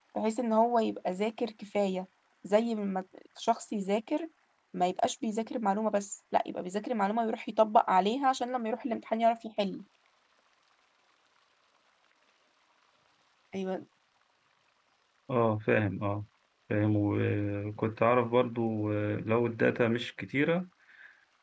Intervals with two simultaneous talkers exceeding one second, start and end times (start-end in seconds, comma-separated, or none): none